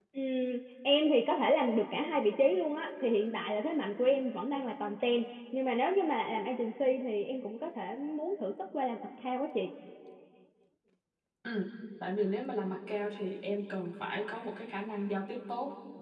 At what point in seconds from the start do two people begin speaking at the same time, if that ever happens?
none

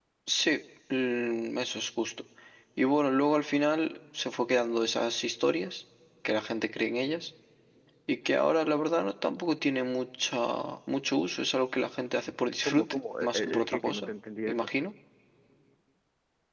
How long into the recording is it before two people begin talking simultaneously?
12.7 s

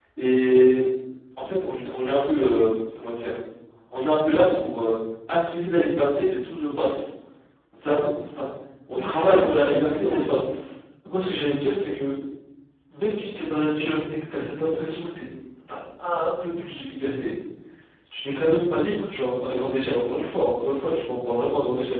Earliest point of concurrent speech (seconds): 9.0 s

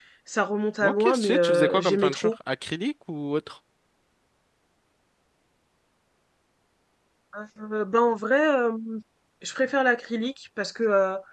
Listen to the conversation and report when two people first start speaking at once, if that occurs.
0.8 s

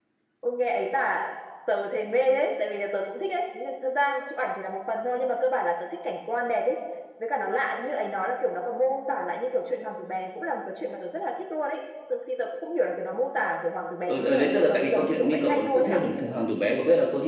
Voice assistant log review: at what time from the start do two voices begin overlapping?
14.1 s

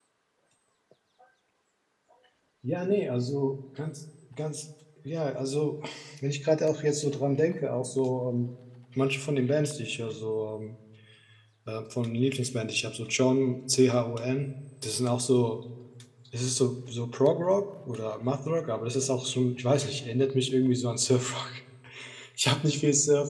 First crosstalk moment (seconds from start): none

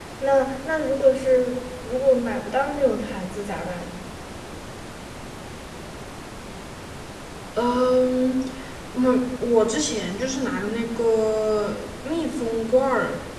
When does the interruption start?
none

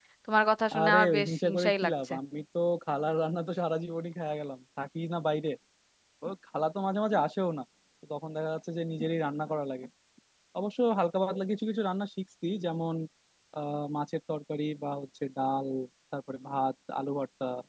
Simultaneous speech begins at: 0.8 s

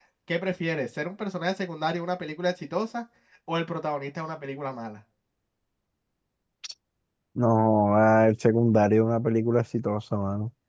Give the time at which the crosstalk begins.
none

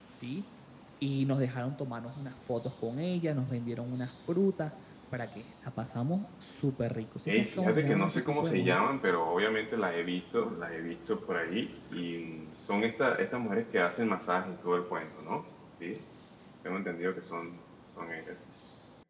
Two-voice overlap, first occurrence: 7.3 s

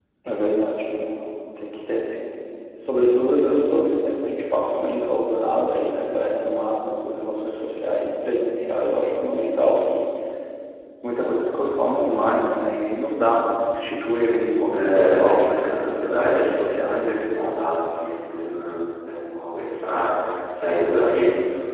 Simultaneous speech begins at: 14.7 s

